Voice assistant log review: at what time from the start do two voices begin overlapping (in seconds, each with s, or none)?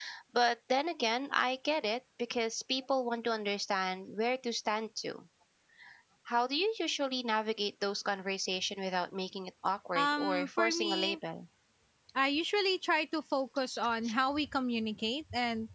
10.0 s